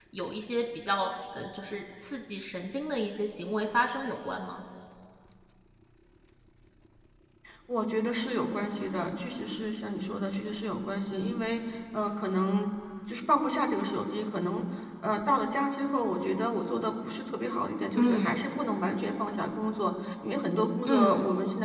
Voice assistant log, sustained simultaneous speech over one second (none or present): none